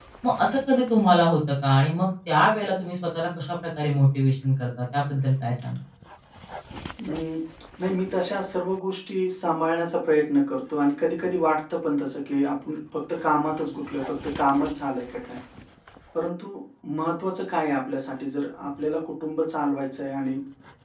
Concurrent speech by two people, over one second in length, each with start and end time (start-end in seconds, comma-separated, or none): none